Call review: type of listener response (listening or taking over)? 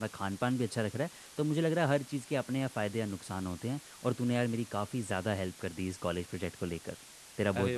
taking over